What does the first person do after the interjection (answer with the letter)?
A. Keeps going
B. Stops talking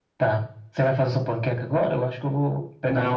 B